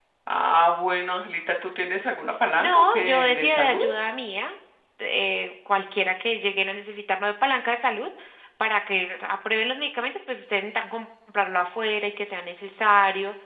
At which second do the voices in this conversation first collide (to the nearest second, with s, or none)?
3 s